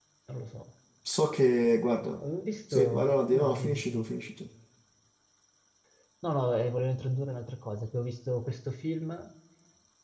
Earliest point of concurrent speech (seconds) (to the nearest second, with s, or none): 3 s